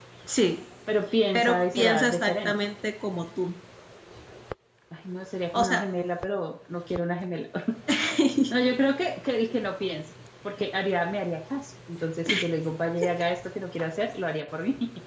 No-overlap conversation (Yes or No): No